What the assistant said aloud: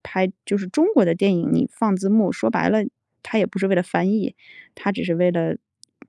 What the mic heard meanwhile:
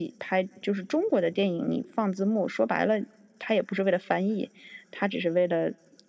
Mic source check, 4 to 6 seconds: echo only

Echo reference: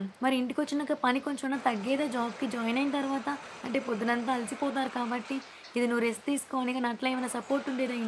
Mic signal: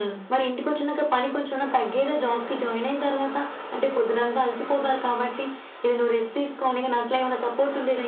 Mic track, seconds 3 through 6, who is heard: echo only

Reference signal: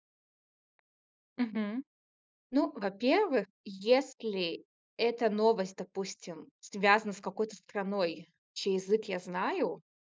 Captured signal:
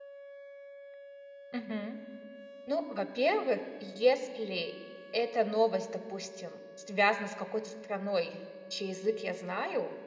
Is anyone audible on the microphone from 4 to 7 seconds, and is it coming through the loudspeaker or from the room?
echo only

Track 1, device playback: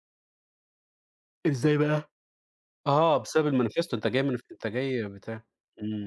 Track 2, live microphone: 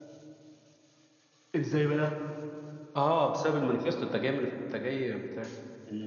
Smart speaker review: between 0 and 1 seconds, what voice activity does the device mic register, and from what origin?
neither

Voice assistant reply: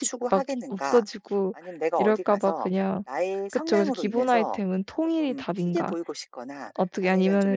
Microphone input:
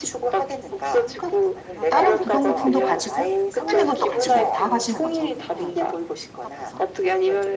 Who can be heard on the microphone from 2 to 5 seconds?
both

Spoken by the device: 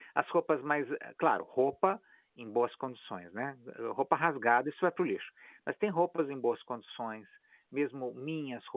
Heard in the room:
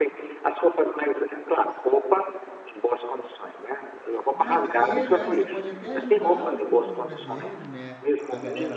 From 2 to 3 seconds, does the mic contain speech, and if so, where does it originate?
echo only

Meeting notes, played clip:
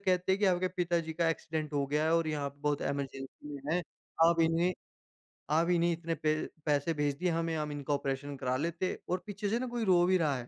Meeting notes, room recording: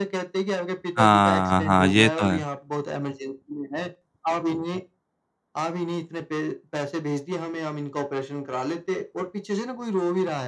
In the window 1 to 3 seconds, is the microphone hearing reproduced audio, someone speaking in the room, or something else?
both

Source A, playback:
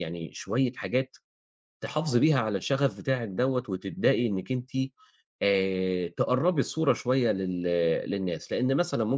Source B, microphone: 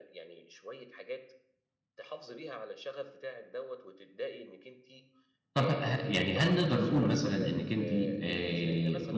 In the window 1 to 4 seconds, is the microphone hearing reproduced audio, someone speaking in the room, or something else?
echo only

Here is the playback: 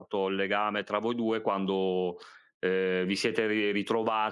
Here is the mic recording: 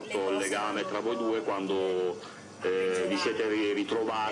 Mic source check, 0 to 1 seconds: both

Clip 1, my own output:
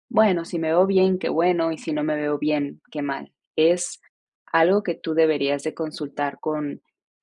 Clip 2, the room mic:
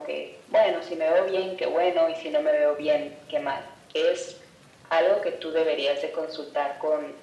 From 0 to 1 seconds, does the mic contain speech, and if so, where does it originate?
echo only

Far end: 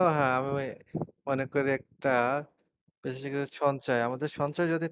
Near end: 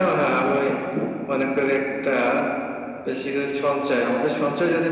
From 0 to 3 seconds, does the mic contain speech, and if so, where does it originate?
echo only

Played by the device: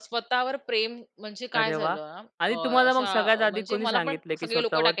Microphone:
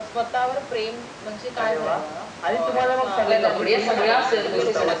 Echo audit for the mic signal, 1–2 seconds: echo only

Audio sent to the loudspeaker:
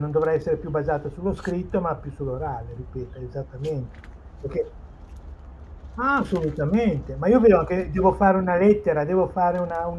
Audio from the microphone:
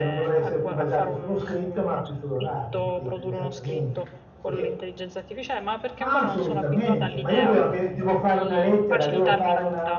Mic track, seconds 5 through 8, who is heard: both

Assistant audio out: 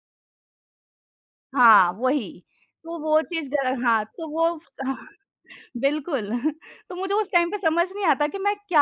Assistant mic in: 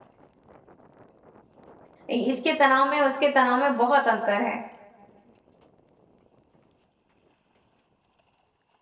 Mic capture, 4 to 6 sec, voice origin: user only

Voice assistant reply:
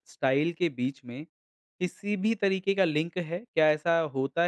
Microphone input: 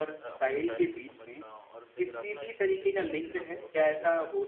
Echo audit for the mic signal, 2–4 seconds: both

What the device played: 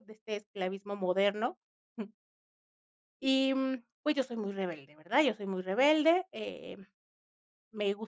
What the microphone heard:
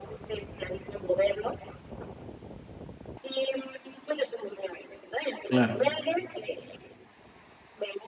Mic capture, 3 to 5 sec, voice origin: echo only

